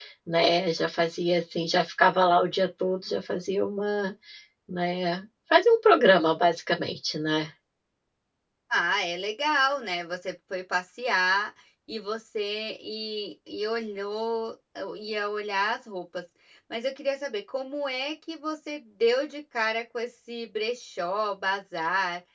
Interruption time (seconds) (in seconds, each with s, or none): none